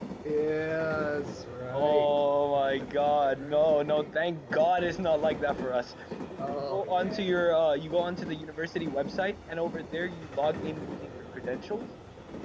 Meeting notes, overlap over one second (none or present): present